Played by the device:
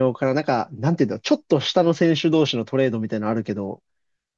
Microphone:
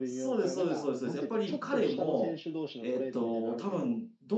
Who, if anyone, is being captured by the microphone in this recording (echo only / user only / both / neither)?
both